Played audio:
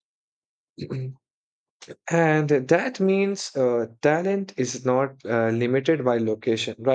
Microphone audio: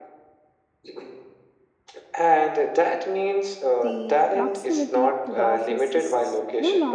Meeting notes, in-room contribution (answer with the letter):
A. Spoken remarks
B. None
A